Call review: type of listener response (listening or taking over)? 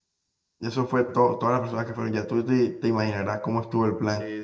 taking over